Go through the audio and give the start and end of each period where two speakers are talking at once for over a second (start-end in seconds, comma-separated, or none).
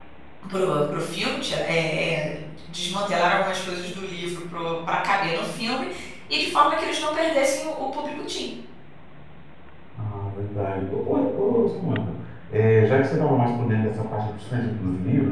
none